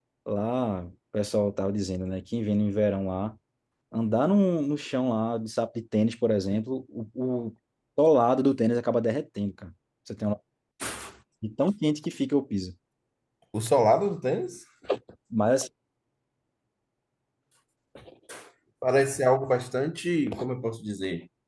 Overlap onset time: none

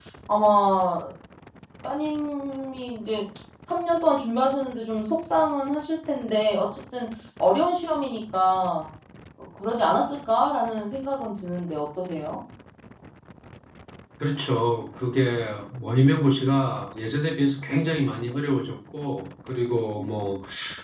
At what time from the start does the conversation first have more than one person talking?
none

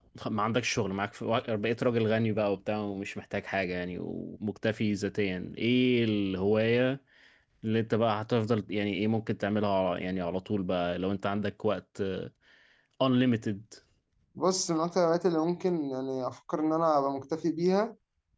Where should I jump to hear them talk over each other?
none

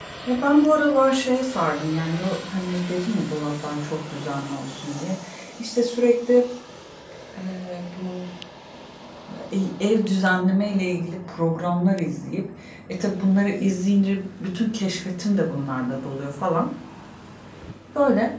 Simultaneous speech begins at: none

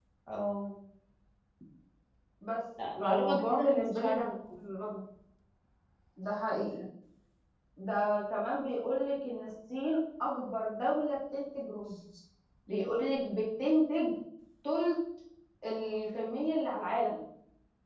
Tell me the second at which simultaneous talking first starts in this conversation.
3.0 s

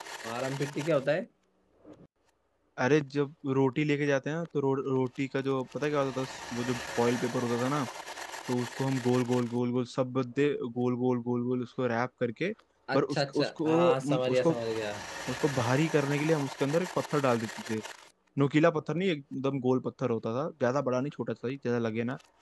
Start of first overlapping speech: 12.9 s

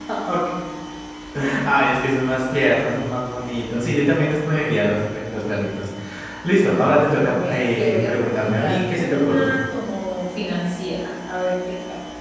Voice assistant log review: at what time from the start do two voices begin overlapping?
7.2 s

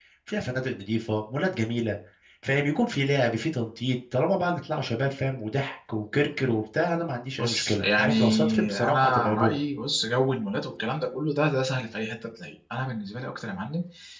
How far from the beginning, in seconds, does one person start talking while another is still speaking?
7.4 s

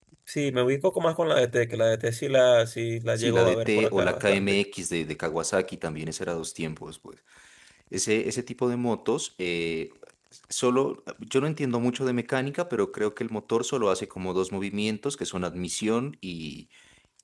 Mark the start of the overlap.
3.2 s

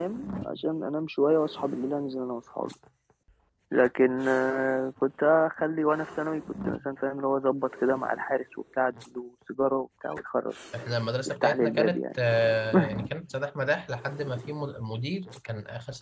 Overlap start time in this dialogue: 11.3 s

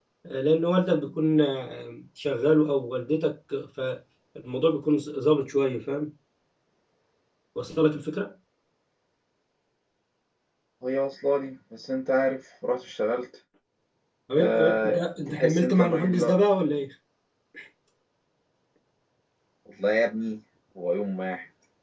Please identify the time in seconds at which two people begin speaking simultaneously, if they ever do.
14.4 s

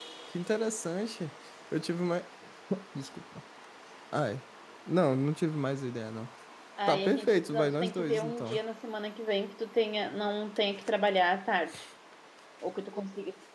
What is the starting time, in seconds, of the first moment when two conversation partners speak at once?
6.9 s

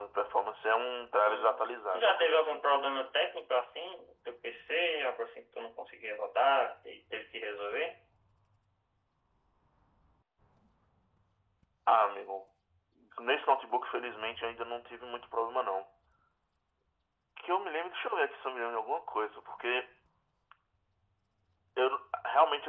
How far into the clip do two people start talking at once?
1.3 s

